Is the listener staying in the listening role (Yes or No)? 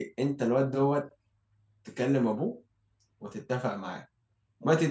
Yes